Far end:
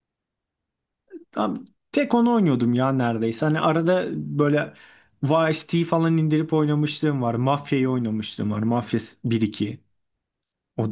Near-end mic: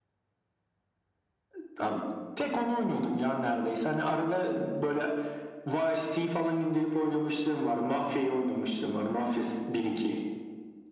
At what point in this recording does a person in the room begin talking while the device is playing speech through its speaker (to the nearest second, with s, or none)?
none